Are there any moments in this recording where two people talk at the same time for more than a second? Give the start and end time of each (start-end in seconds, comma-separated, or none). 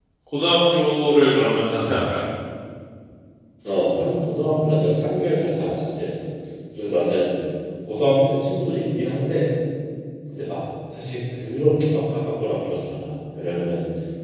none